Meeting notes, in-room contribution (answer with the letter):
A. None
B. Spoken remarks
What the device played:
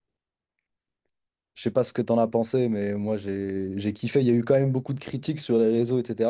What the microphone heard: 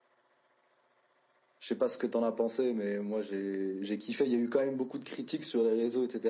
A